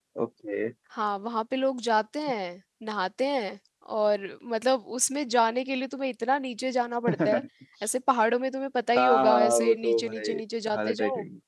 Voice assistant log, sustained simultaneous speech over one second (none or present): present